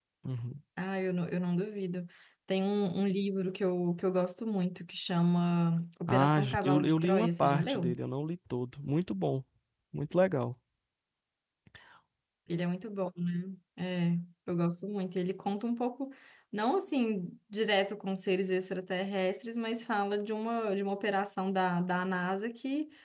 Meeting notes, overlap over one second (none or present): present